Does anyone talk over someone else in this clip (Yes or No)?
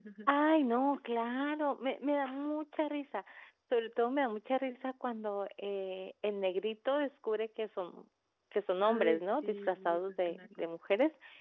Yes